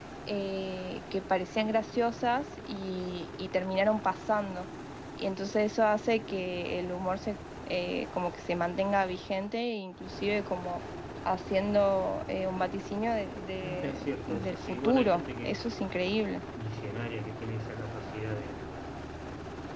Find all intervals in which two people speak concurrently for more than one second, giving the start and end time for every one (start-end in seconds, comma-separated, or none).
13.6-15.7